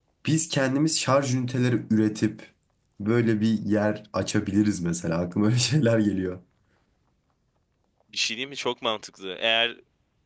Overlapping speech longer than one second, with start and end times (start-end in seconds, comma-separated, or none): none